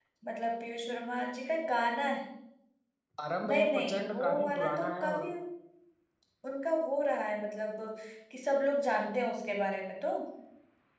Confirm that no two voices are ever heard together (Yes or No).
No